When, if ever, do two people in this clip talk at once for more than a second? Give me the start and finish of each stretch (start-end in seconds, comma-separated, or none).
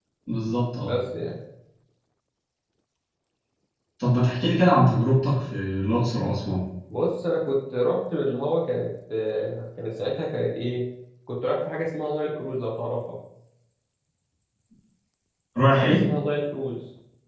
none